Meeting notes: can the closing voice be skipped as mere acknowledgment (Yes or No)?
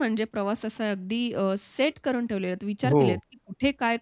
Yes